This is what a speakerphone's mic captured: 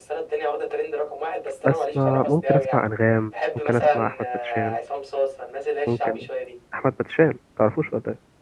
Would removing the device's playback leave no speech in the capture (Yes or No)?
No